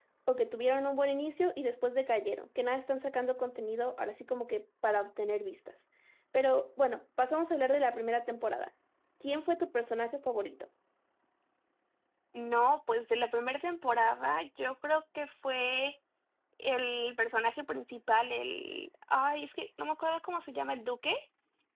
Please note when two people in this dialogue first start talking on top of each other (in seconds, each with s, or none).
none